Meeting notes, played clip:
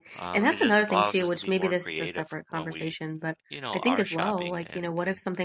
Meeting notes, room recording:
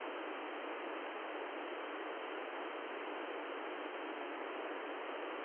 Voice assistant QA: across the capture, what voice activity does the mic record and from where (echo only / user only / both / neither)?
neither